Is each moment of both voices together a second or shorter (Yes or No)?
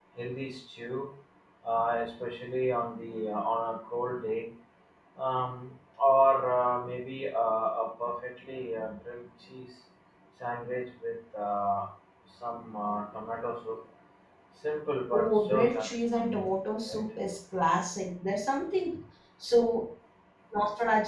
No